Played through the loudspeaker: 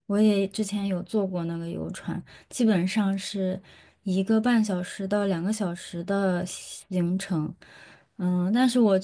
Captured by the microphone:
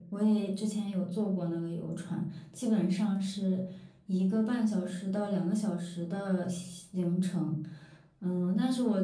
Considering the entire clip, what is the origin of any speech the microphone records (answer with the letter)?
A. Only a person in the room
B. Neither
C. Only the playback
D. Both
C